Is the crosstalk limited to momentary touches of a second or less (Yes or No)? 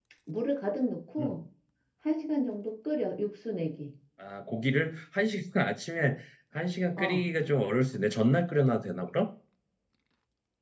Yes